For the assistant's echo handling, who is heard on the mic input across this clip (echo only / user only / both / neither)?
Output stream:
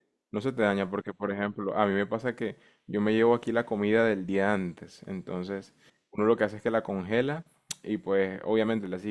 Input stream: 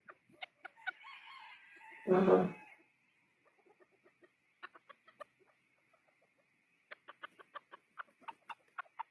user only